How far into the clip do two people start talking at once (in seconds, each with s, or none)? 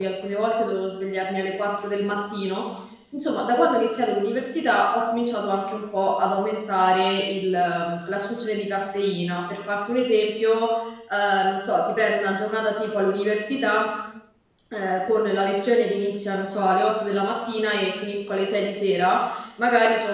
none